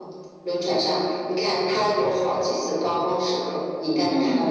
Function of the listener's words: taking over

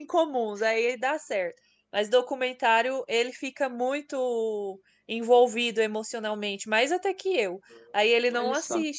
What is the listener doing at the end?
listening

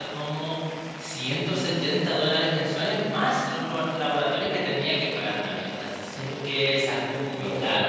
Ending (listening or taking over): taking over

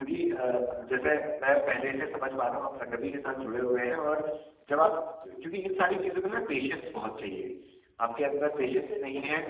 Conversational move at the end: listening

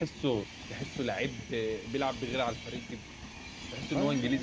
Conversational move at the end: listening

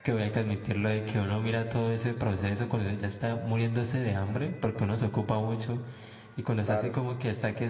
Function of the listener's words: listening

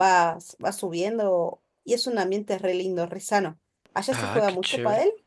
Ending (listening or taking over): taking over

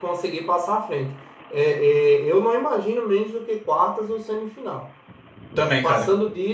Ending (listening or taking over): listening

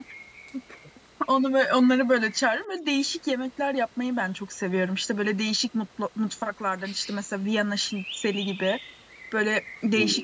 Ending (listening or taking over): listening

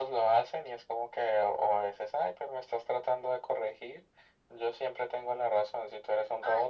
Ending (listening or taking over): listening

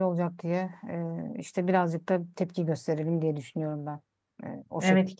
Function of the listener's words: taking over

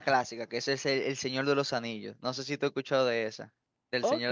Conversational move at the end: taking over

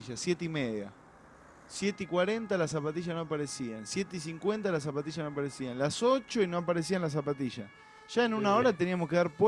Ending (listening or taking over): listening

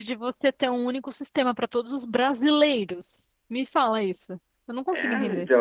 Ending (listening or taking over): taking over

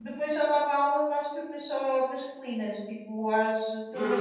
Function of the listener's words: listening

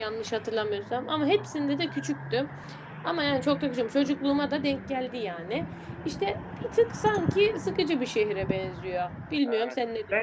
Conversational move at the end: taking over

